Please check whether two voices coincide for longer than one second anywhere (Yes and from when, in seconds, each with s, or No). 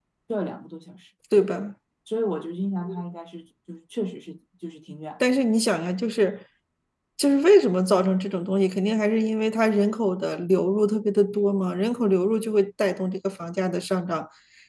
No